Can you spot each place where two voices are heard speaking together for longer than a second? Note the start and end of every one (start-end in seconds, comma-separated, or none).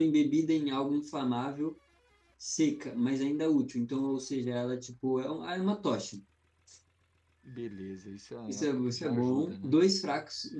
8.5-9.8